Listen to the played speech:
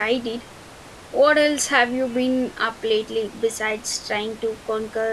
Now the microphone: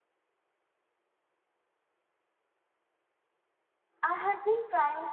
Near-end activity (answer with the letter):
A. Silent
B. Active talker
B